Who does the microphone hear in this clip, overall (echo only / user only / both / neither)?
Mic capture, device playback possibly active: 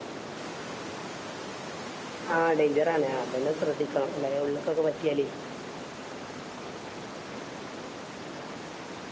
user only